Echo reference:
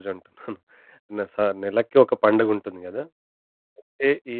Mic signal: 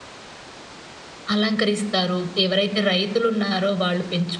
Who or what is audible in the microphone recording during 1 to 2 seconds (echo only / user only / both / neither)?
user only